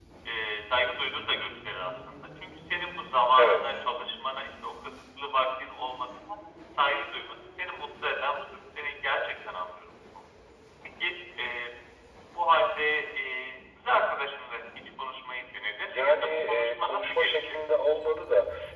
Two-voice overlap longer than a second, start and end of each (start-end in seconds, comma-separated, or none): 15.9-17.3